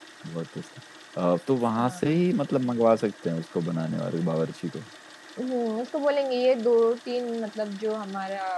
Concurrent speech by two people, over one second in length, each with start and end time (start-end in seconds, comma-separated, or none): none